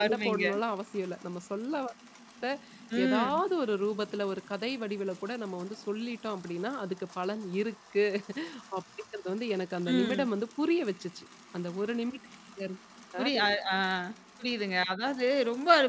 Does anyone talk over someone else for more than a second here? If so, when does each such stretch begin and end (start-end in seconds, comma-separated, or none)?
none